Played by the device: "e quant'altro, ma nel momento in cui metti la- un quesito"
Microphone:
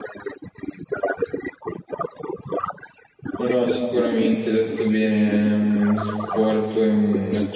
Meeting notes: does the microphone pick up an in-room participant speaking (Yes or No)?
Yes